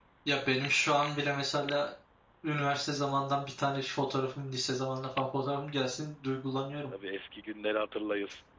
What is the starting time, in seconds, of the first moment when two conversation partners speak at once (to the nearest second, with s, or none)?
none